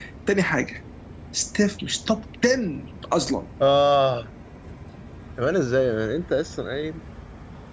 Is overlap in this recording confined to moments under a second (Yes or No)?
Yes